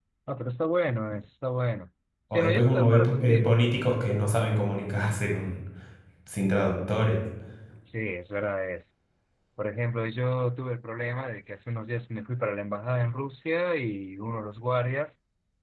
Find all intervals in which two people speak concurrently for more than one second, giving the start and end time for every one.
2.3-3.6

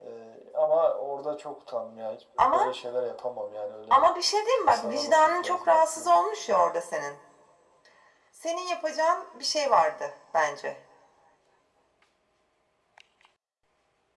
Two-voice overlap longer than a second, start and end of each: 4.7-6.1

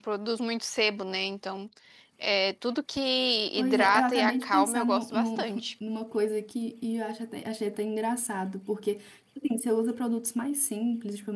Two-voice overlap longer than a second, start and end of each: 3.6-5.7

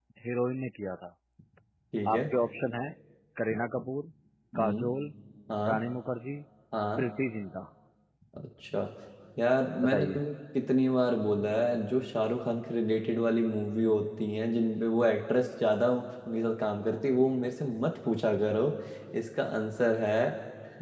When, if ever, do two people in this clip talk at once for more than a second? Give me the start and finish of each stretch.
none

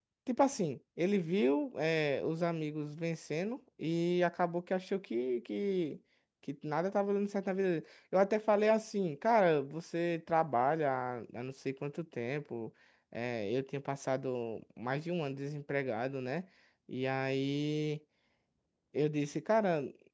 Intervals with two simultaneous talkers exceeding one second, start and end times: none

